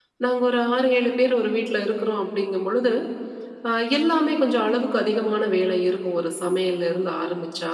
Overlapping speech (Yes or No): No